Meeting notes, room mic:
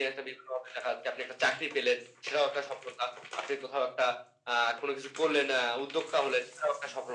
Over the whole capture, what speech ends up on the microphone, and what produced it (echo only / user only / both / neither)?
echo only